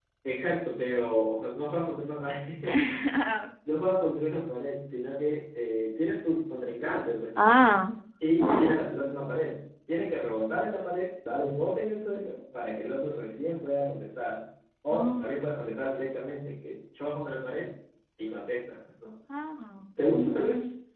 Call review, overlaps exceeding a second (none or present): none